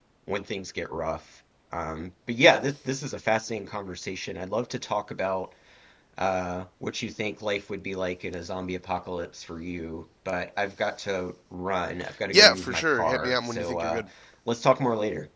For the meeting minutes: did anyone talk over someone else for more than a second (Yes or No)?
Yes